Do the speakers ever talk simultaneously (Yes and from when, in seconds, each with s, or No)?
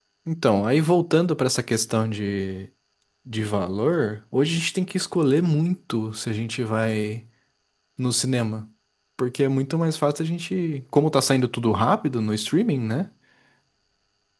No